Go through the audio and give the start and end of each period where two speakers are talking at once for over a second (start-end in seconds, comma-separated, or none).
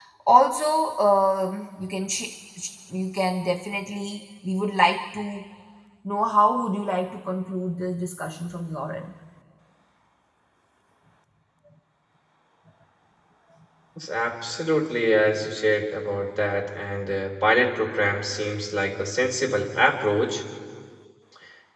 none